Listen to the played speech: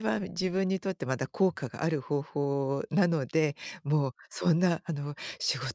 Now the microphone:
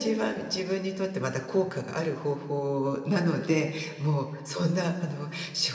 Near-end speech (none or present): none